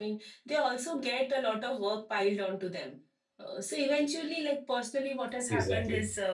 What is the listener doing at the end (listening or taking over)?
listening